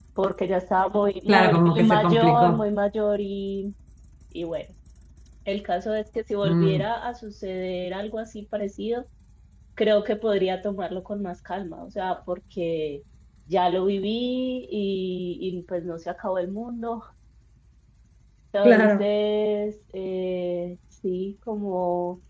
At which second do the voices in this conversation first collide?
1.3 s

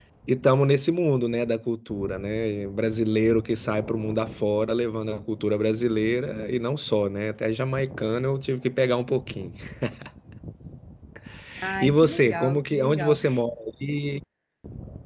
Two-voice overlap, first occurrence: 11.8 s

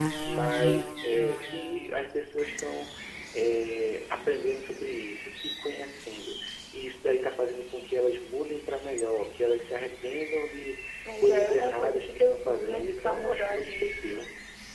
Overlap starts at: 11.2 s

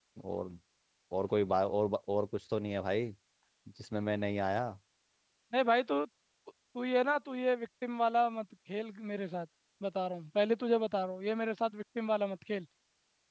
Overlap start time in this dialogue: none

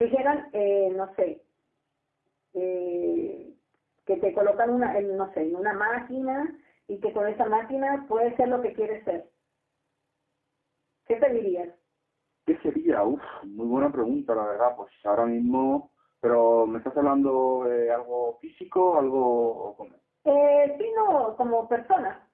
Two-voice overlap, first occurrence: none

